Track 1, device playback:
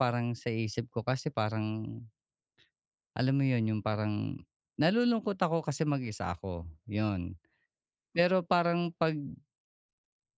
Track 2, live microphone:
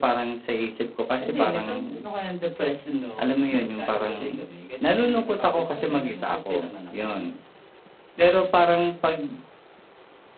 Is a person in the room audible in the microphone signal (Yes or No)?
Yes